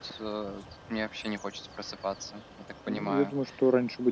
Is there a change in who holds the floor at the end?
Yes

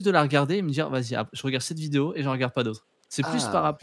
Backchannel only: Yes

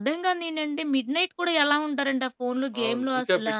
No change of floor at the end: No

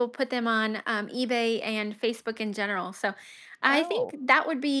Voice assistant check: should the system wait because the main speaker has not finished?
Yes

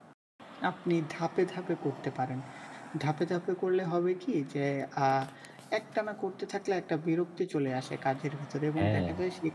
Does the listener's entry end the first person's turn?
No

